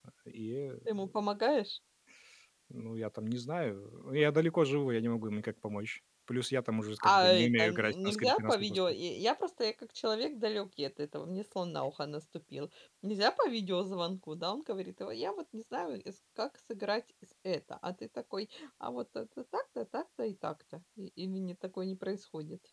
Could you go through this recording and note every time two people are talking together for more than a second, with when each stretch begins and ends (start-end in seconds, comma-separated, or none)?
7.0-8.7